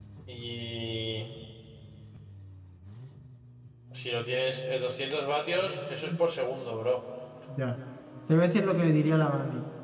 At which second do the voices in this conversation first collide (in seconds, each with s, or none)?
none